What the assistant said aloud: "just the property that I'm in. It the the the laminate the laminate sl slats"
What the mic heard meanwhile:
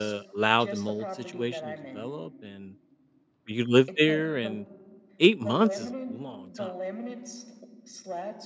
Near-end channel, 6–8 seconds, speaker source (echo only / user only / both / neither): both